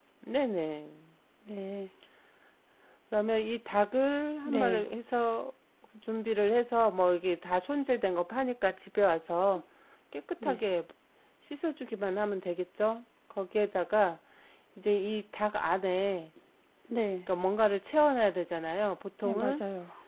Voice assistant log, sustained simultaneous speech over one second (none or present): none